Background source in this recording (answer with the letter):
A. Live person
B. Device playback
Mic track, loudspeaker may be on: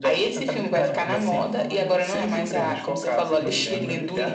A